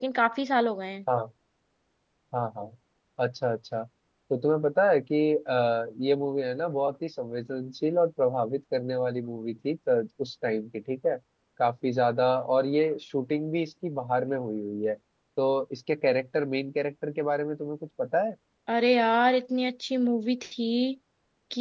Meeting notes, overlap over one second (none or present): none